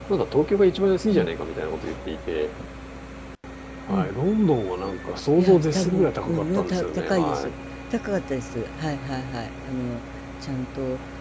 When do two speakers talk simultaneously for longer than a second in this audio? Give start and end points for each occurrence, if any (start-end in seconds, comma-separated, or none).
5.4-7.5